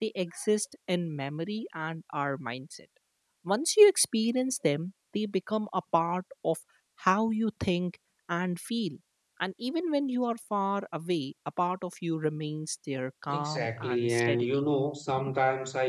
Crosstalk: present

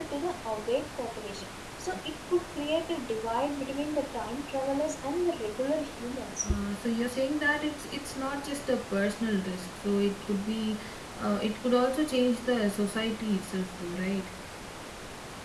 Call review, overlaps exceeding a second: none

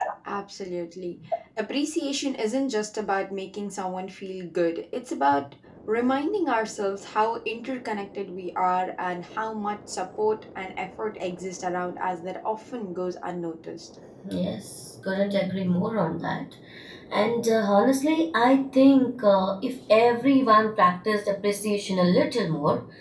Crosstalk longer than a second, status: none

